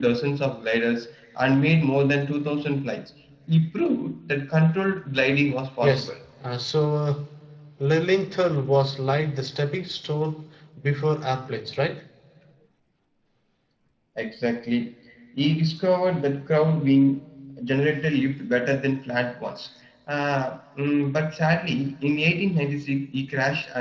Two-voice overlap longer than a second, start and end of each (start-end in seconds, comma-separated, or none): none